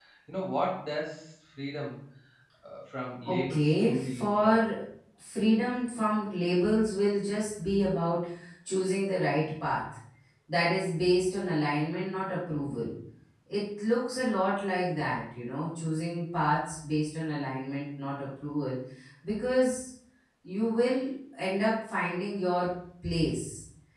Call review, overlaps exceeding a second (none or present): present